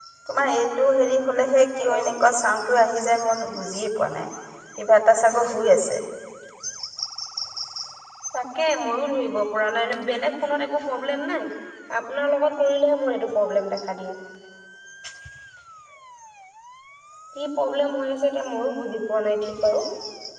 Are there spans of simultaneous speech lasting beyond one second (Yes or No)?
No